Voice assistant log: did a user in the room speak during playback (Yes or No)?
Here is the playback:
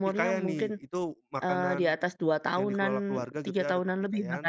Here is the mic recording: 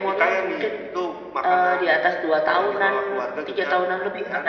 No